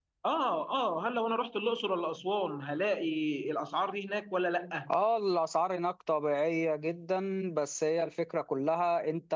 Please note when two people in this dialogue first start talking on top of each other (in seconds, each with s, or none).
none